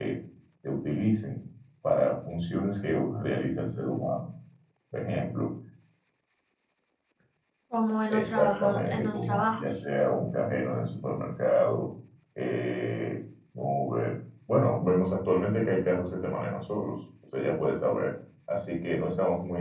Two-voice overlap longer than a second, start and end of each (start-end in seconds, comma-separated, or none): 8.1-9.8